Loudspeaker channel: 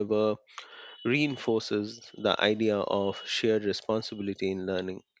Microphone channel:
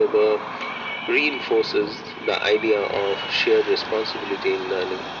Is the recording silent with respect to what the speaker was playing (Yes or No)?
No